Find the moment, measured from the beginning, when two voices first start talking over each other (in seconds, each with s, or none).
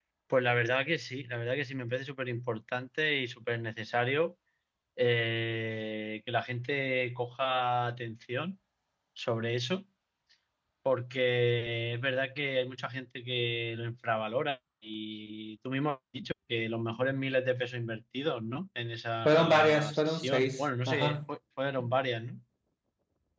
19.2 s